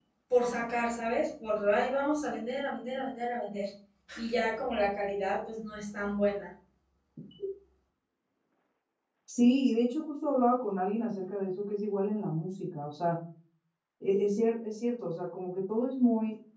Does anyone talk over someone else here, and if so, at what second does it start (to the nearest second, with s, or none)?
none